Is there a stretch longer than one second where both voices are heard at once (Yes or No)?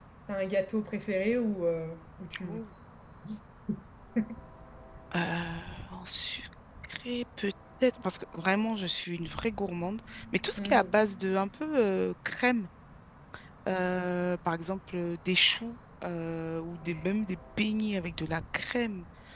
No